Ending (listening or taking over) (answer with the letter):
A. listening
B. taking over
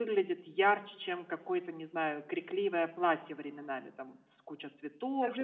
B